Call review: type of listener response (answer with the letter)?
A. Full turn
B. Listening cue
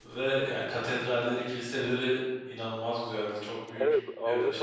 A